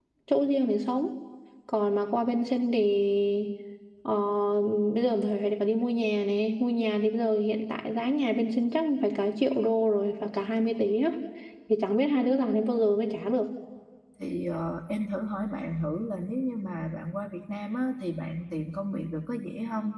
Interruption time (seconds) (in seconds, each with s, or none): none